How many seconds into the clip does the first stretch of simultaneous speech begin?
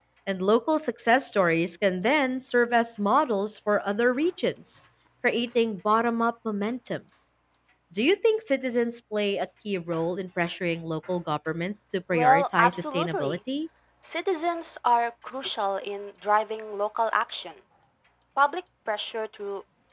12.1 s

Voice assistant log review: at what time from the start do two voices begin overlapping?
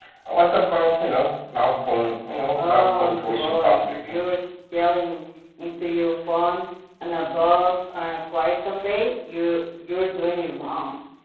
2.5 s

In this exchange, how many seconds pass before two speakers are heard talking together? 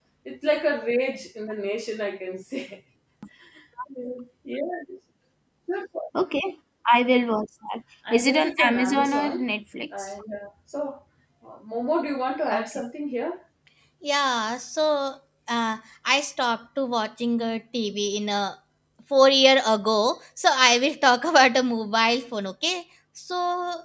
8.1 s

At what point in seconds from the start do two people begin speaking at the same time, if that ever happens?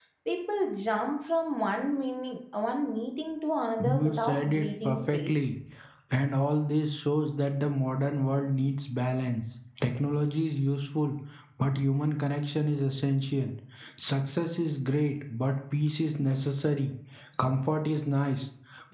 3.8 s

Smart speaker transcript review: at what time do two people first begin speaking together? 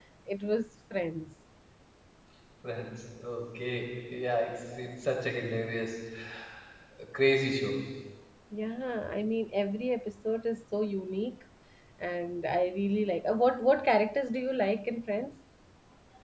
none

